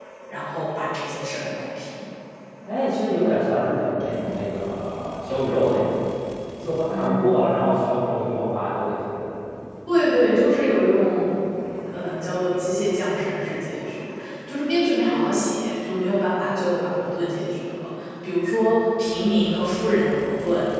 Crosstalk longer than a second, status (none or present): none